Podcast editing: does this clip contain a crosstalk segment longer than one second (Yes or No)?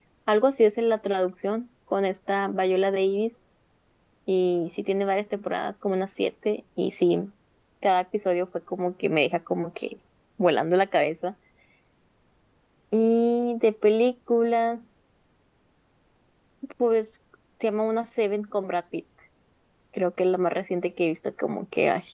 No